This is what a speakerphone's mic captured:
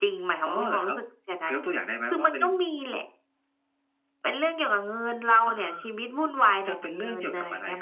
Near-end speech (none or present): none